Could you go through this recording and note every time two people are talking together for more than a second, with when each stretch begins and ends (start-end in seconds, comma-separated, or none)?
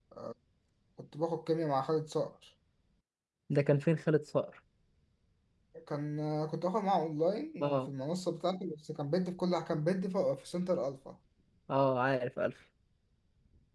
none